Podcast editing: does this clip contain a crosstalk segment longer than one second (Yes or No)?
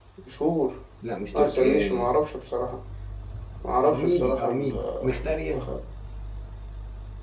Yes